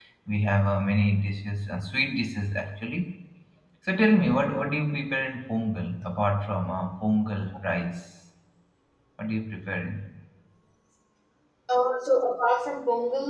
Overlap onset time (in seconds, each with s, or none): none